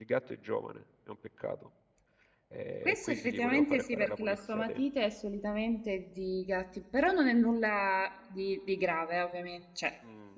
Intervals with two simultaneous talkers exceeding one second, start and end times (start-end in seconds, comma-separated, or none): 2.9-4.8